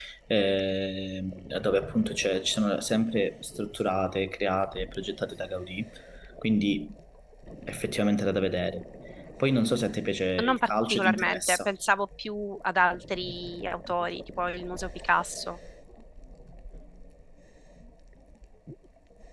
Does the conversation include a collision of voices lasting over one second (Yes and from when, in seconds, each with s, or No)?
Yes, from 10.4 s